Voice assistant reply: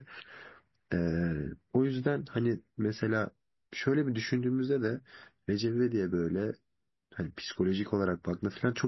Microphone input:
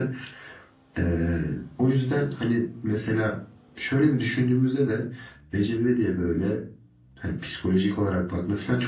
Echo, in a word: present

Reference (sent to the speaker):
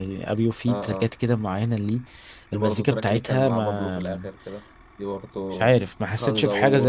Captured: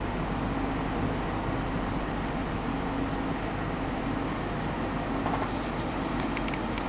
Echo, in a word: none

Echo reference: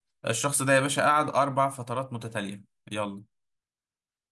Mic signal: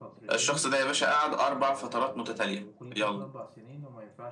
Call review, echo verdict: present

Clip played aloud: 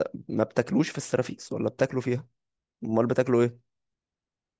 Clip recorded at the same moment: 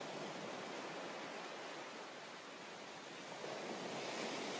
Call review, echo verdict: none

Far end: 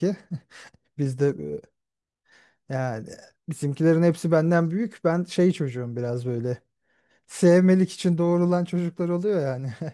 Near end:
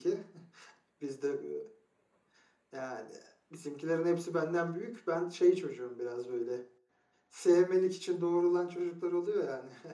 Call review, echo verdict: present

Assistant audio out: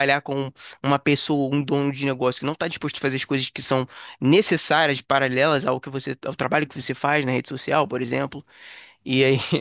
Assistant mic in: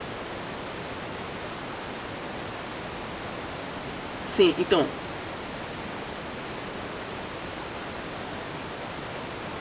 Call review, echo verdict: none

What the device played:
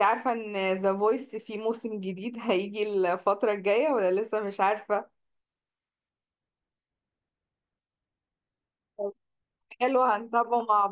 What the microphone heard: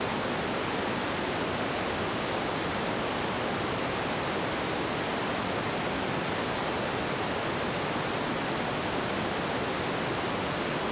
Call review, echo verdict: none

